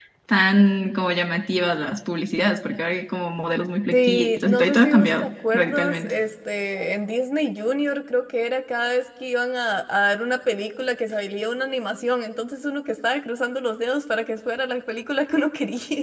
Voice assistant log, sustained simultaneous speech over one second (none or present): present